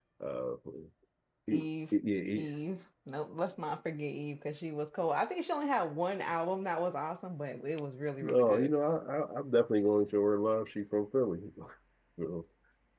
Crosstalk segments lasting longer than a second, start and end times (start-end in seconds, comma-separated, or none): none